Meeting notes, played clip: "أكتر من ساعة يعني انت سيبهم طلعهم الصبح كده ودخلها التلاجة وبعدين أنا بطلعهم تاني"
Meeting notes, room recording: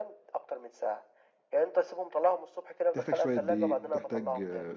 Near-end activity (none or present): present